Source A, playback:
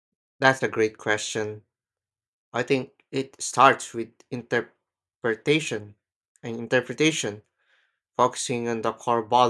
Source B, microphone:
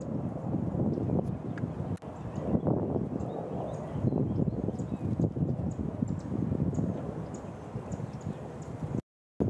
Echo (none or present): none